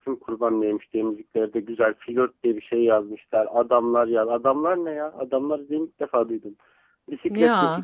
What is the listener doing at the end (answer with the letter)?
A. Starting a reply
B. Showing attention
B